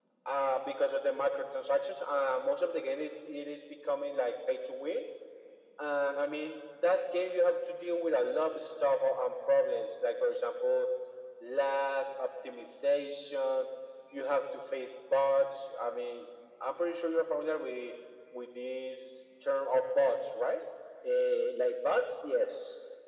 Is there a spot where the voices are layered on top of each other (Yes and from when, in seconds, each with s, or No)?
No